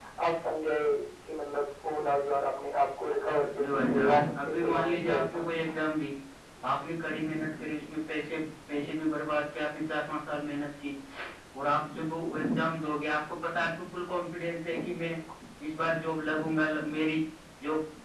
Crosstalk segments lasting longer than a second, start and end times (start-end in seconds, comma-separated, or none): 3.6-5.4